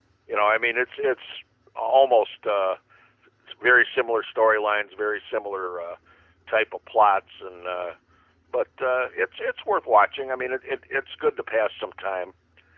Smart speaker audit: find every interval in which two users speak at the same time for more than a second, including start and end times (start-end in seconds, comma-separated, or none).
none